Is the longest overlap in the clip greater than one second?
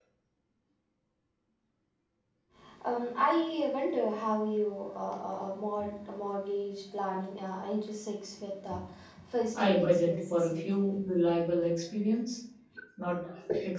Yes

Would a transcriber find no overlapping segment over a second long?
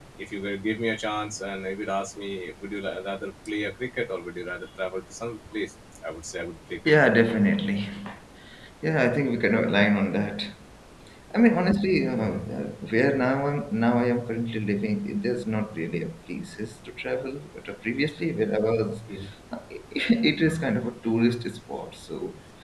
Yes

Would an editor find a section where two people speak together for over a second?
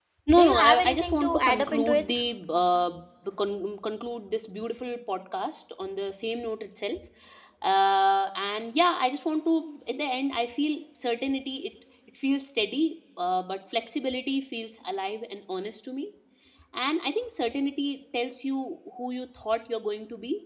Yes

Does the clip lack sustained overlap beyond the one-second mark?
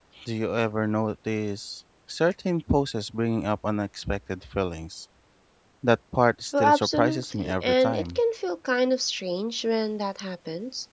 No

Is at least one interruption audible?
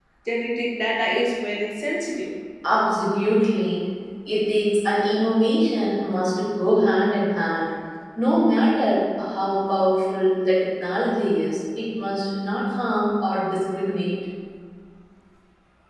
No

